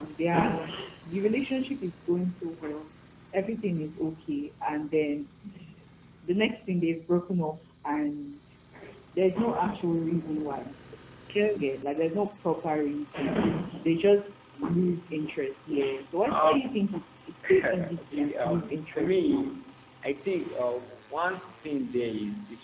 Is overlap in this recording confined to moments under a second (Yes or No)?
No